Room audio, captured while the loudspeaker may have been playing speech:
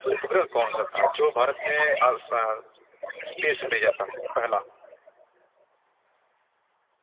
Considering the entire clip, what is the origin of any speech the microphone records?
both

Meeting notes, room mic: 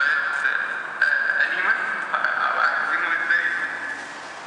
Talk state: echo only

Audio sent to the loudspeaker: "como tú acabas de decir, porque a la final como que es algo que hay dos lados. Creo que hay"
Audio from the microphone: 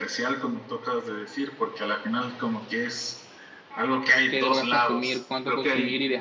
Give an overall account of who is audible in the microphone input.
both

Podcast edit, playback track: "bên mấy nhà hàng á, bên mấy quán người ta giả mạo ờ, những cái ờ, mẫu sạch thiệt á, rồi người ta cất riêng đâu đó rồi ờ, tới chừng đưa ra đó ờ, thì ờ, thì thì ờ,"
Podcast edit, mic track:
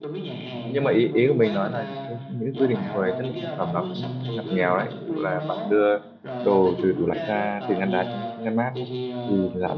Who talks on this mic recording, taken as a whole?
both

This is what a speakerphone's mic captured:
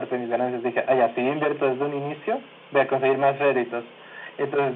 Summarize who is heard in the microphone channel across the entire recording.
echo only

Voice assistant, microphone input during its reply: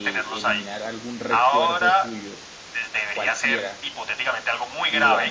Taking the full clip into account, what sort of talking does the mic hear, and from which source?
both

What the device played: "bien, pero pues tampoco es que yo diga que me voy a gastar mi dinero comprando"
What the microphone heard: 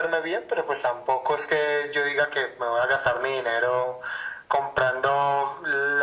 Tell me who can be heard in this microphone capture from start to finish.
echo only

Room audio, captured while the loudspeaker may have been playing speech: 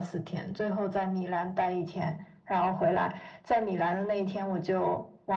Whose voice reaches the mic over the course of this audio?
echo only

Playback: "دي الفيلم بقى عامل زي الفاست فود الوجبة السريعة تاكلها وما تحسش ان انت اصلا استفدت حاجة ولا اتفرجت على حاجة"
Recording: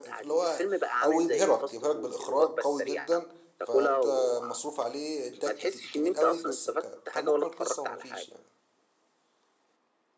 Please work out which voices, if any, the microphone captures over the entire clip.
both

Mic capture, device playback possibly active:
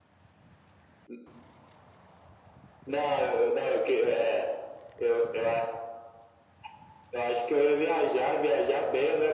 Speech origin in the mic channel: echo only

